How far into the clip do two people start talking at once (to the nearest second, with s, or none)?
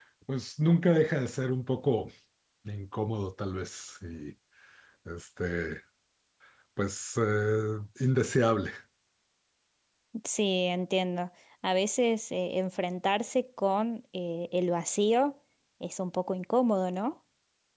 none